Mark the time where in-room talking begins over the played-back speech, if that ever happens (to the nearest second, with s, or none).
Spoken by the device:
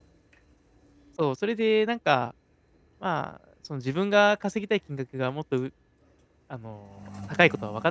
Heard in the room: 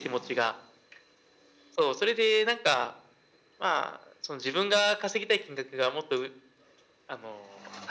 none